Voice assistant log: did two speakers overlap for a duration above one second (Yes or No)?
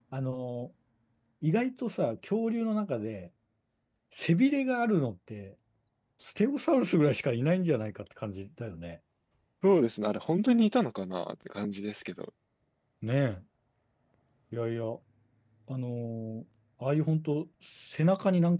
No